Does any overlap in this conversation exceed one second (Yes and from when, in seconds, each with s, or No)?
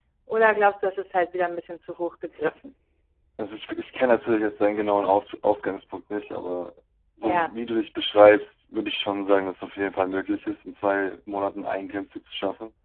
No